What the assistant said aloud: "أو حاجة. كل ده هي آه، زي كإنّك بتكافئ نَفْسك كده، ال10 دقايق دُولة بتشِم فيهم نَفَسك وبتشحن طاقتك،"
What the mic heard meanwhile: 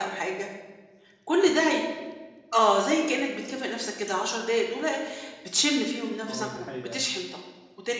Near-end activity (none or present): present